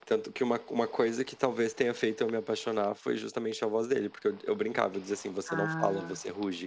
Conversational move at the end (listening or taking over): listening